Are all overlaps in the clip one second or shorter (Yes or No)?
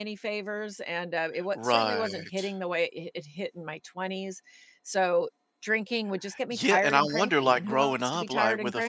No